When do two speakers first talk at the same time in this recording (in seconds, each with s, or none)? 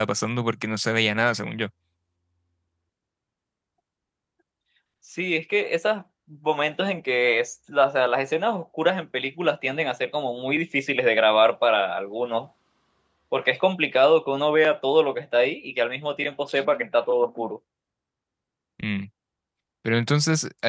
none